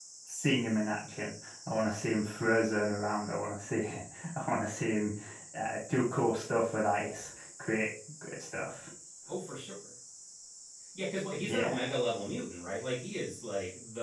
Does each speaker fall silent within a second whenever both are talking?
Yes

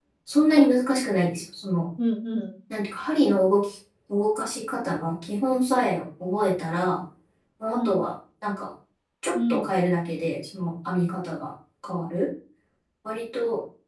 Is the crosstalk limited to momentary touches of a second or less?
Yes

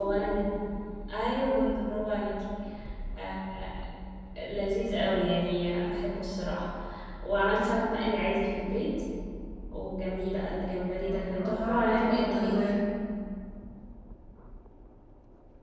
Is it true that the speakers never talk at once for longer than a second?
No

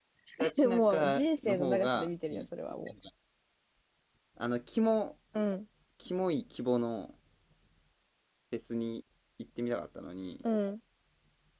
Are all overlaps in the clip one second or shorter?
No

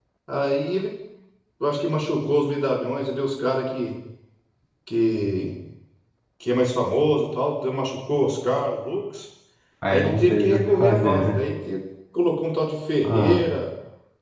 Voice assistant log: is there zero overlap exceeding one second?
No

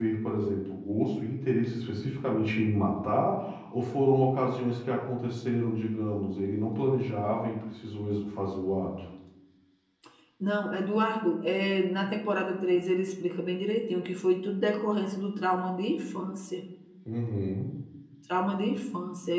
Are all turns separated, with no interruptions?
Yes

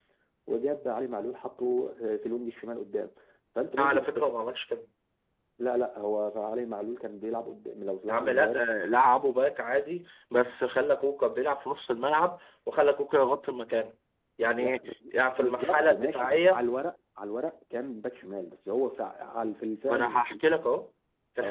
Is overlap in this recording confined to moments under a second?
No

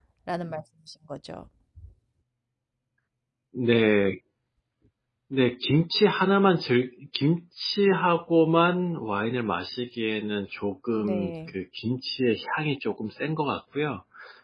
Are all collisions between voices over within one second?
Yes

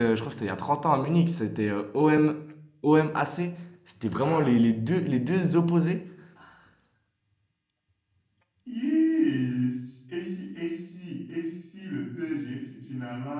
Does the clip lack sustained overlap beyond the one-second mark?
Yes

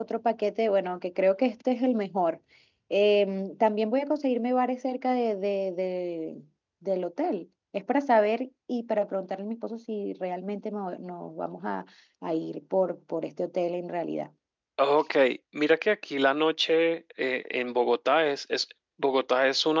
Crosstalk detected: No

